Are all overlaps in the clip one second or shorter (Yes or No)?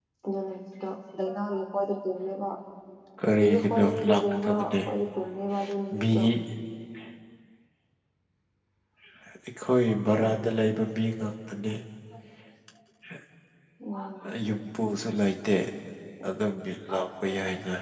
No